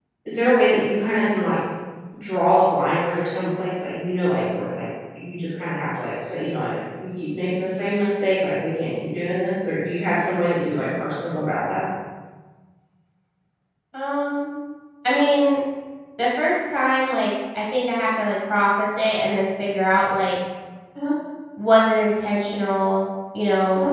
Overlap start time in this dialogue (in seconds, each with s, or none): none